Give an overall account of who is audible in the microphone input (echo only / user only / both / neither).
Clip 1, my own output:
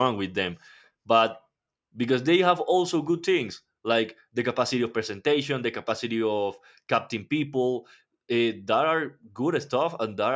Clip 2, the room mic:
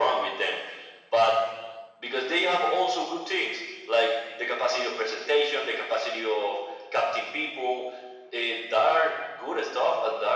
echo only